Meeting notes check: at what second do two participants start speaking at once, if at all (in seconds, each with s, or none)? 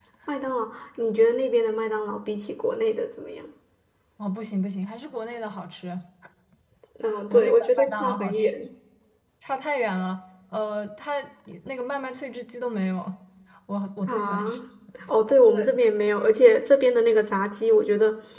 7.3 s